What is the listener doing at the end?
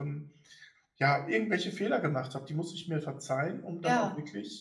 listening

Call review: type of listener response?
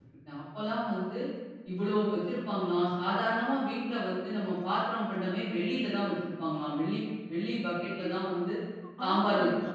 taking over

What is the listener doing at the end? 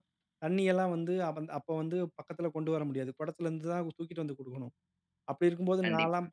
listening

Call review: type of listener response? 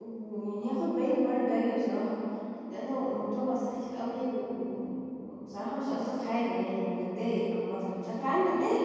taking over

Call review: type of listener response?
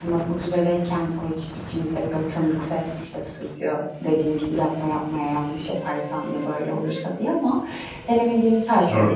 listening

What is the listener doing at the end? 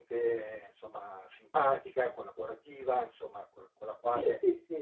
taking over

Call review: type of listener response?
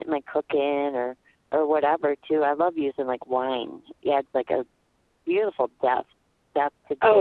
taking over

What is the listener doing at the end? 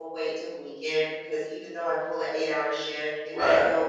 listening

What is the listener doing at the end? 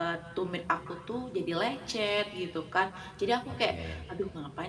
listening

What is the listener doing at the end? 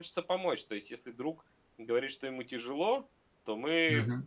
listening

